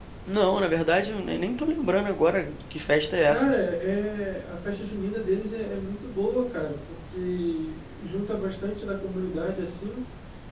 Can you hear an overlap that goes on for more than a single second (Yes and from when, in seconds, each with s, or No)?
No